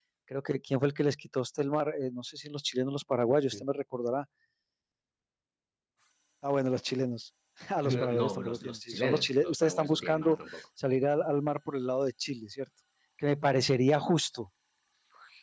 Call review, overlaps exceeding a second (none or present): present